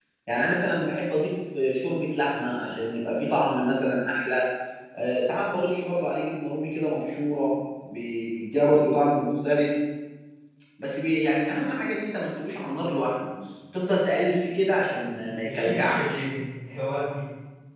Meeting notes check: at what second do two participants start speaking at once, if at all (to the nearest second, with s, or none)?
15 s